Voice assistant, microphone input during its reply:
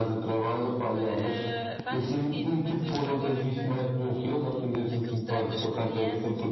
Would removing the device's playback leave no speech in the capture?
No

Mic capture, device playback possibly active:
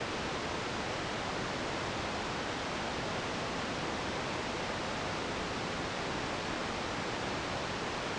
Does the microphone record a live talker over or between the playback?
No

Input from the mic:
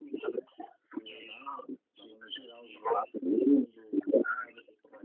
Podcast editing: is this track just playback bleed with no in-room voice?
Yes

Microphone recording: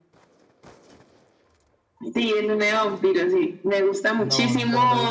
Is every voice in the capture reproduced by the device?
No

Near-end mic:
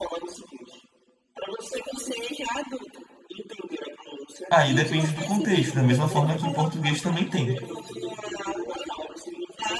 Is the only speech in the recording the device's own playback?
No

